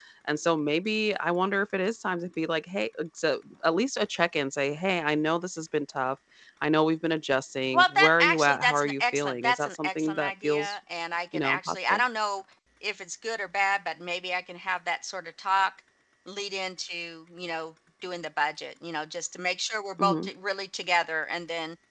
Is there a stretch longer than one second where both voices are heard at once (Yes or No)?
Yes